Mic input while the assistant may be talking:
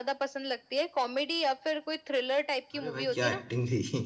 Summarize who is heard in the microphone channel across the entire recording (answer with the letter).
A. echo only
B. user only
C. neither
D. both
D